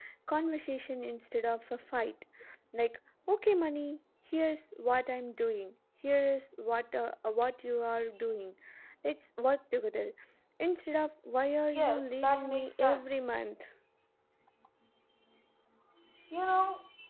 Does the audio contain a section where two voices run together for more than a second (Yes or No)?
Yes